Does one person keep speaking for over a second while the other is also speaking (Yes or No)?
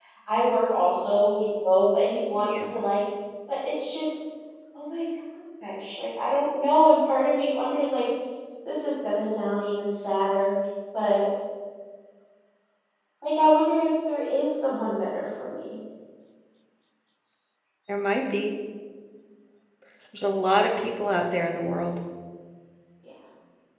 No